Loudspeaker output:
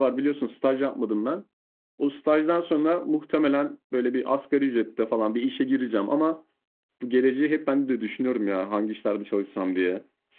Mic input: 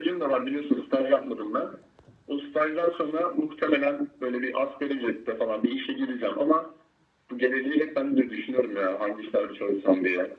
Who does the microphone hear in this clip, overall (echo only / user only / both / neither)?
echo only